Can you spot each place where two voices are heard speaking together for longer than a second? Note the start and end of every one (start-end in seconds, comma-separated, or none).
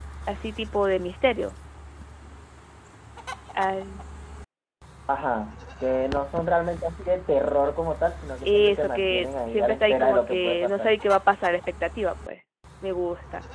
8.4-10.9